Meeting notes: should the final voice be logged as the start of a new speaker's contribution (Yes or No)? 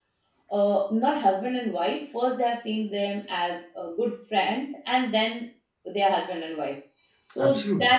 No